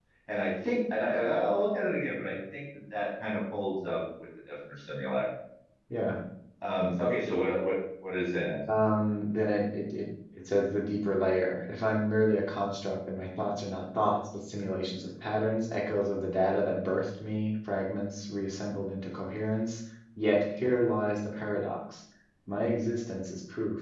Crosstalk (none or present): none